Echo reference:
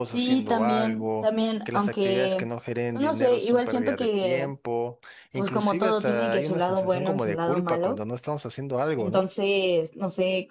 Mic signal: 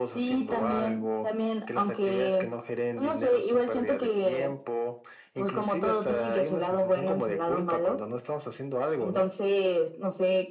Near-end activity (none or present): none